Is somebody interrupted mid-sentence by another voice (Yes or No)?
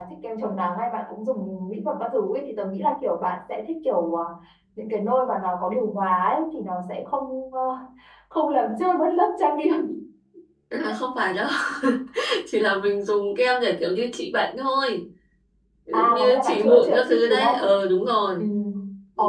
Yes